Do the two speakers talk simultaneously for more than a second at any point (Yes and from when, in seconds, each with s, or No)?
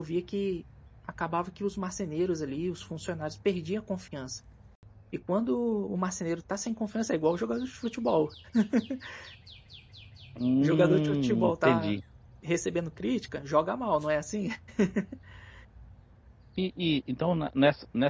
Yes, from 10.6 s